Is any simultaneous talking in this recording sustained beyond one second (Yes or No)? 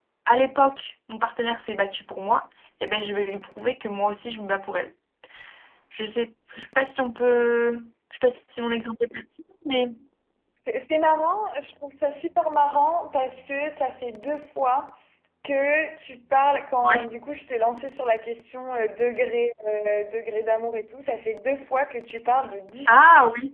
No